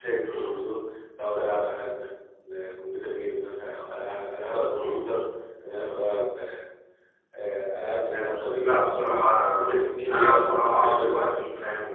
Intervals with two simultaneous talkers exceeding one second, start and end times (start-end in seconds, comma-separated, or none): 9.6-11.4